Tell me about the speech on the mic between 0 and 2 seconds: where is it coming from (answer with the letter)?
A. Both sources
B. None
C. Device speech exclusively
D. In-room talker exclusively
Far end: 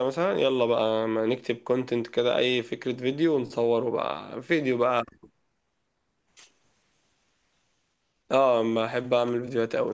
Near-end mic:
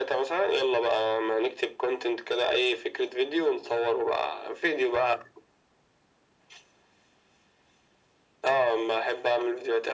C